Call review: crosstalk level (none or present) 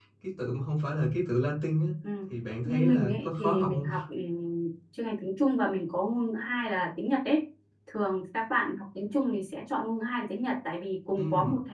present